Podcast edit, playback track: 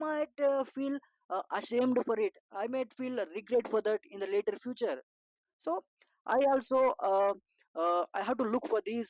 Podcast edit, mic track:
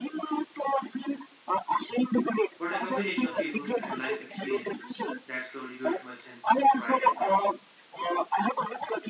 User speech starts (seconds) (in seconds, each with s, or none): 2.6 s